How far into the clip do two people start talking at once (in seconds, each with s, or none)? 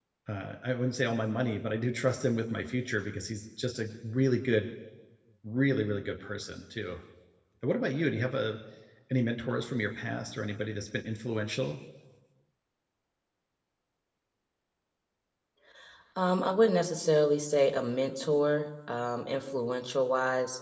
none